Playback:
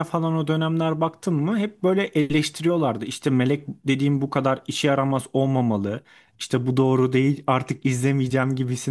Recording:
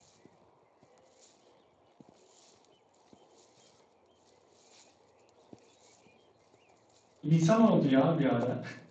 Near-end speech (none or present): present